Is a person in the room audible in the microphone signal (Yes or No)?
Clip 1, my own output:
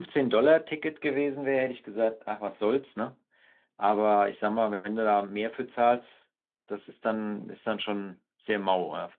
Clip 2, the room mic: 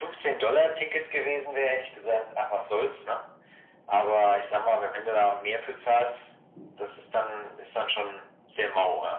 No